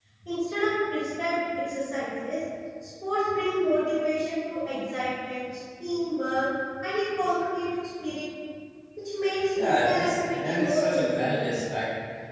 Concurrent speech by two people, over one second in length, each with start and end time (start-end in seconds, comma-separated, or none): 9.6-11.6